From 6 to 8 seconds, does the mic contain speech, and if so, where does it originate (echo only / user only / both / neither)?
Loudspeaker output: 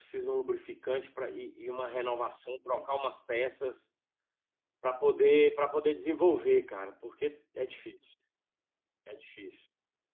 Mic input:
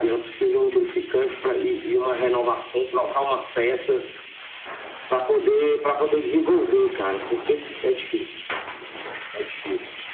echo only